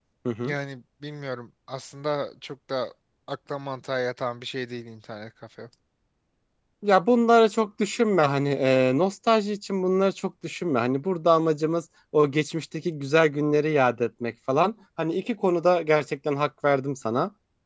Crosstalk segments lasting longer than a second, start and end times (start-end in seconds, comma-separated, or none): none